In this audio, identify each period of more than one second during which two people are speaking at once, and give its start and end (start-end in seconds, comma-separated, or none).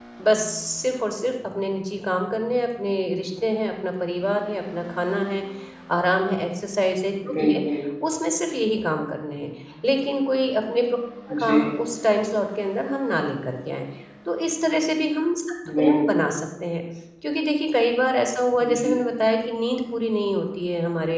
none